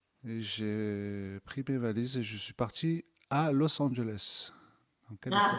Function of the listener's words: taking over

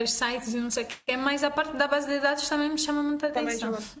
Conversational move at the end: taking over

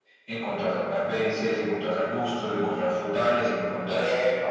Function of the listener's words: listening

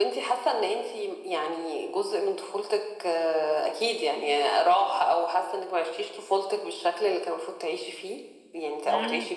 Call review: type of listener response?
taking over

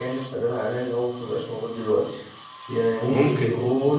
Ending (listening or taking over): listening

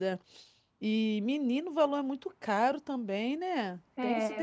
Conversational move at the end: taking over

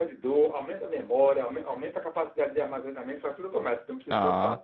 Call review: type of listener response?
taking over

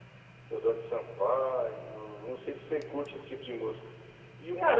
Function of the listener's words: taking over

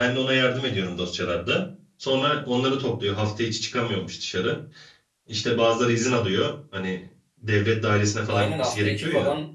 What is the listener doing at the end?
taking over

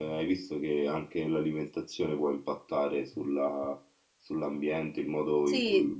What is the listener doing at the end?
listening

